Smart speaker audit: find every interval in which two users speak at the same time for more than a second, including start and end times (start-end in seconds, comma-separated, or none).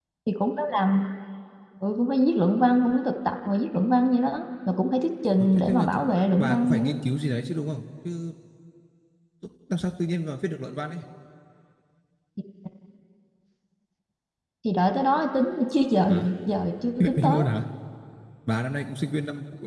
5.5-7.0